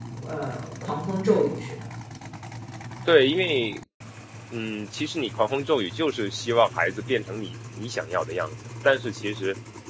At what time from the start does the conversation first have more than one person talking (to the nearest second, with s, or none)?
none